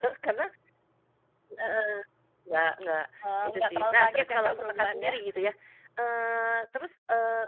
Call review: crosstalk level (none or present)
present